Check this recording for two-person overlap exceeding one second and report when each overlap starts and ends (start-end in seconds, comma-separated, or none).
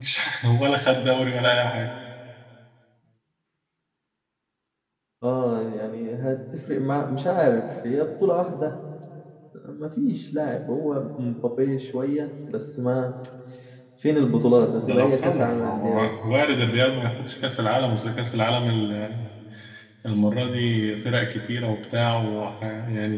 14.8-16.1